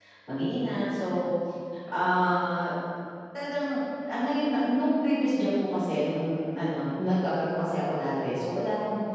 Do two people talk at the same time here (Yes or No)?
No